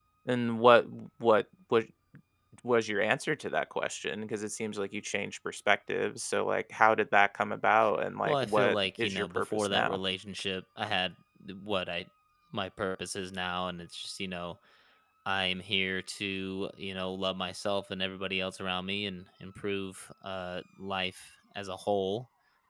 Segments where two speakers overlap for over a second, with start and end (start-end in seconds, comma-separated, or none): 8.2-10.0